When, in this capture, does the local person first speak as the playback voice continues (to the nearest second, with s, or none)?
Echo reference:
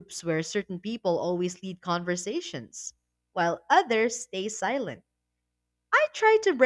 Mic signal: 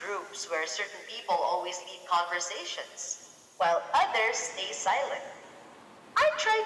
none